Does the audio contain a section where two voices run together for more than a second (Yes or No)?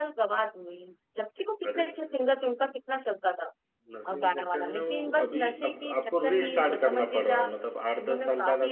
Yes